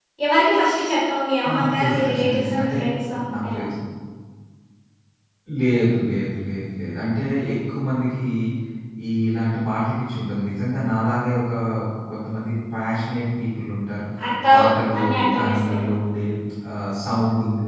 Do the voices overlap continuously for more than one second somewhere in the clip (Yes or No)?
Yes